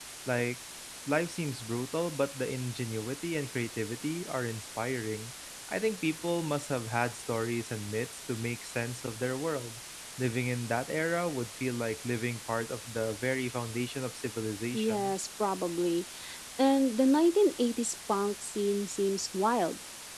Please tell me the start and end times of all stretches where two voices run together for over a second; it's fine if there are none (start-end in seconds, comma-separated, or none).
none